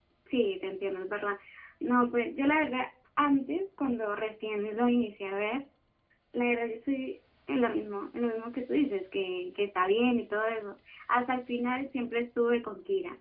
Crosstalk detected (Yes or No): No